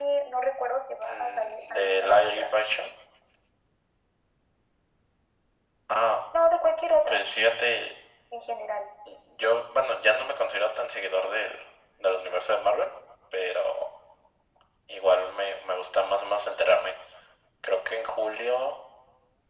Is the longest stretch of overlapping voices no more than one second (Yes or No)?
No